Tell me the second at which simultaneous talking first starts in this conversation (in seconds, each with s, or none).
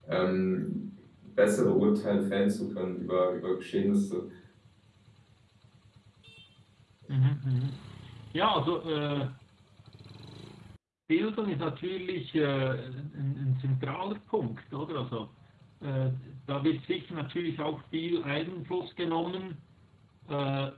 none